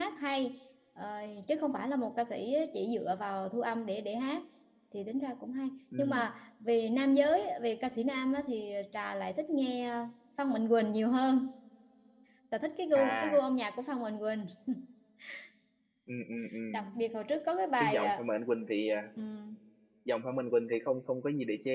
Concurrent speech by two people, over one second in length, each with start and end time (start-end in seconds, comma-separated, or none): none